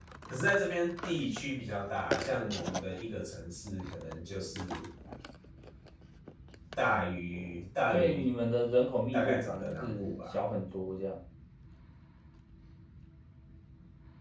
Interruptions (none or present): present